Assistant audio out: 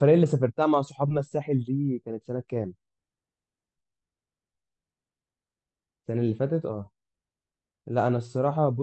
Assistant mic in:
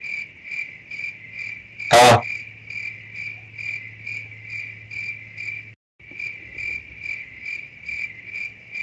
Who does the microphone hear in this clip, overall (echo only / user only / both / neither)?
user only